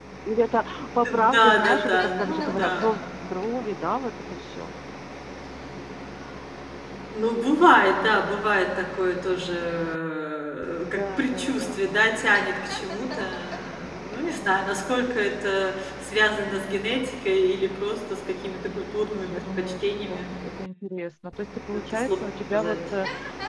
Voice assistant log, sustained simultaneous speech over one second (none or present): present